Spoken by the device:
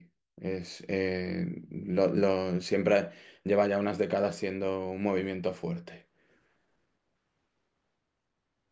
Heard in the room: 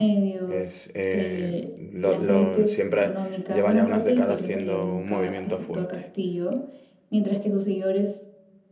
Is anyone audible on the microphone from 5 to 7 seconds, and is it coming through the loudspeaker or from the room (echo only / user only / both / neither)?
both